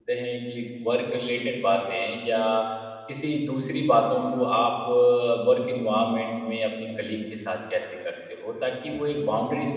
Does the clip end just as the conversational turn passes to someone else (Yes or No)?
No